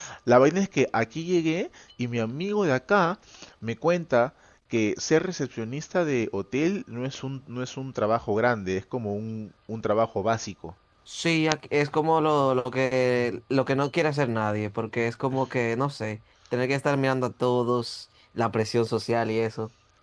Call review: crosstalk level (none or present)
none